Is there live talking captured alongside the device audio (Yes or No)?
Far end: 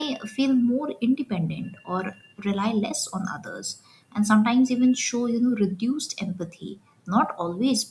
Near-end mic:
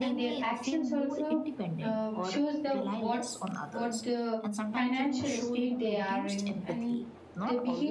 Yes